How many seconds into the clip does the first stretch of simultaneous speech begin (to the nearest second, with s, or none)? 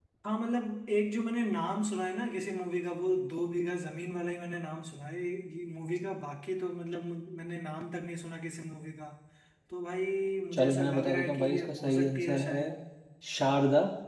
11 s